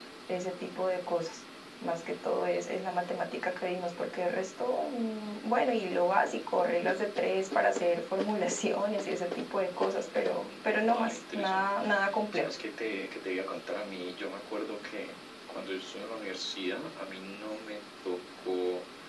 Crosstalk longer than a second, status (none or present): present